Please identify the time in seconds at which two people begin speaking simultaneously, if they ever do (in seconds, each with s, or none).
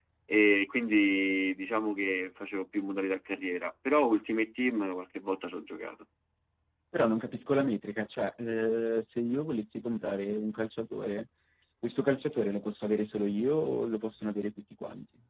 none